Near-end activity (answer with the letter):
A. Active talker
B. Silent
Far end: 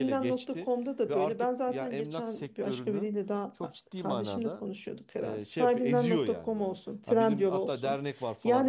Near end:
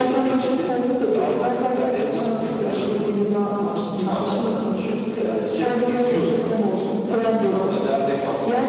B